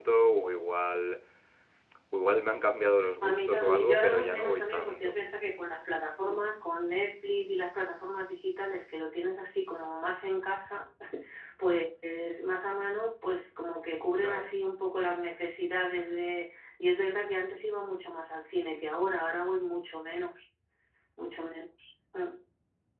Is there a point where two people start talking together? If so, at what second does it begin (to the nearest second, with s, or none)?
3 s